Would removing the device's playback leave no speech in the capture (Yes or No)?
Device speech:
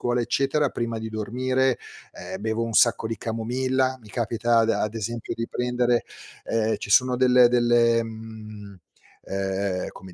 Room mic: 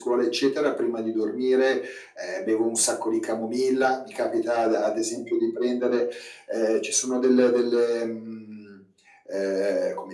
Yes